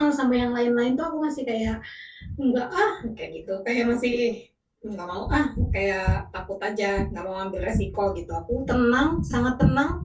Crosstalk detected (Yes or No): No